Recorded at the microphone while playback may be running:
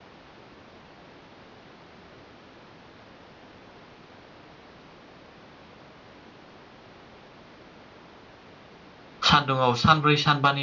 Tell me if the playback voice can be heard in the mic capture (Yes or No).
No